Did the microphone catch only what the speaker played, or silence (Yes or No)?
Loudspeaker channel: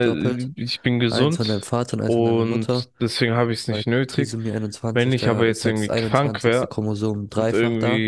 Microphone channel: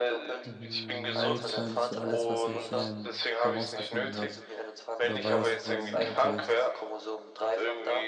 No